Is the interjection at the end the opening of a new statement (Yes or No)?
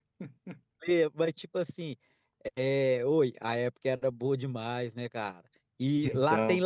No